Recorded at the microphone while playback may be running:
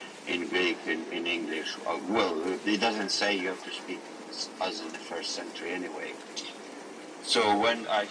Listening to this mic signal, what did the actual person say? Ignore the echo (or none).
none